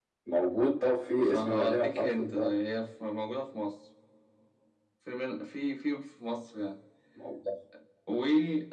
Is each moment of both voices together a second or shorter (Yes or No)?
No